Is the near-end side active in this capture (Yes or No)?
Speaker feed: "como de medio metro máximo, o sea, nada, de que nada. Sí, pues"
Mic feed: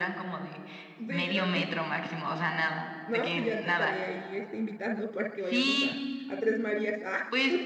Yes